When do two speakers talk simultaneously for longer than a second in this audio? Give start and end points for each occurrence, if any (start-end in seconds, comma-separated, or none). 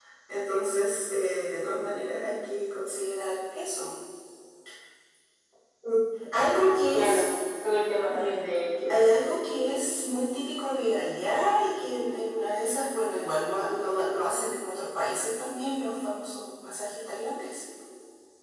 none